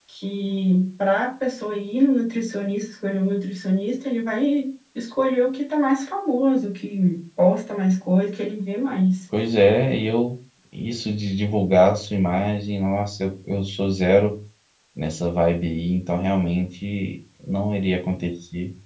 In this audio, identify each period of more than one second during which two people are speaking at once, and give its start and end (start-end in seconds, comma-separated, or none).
none